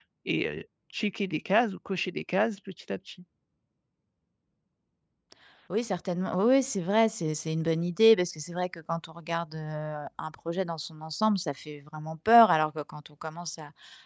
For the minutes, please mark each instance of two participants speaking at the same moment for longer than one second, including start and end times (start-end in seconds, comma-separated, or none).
none